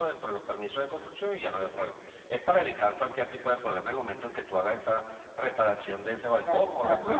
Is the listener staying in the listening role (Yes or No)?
No